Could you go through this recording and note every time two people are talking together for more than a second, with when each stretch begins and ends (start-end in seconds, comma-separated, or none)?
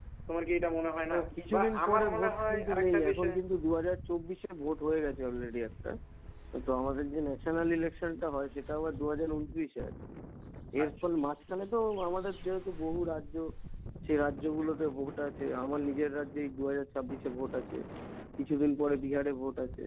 1.5-3.3